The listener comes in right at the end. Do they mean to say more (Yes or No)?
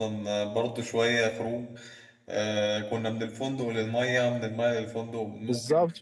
Yes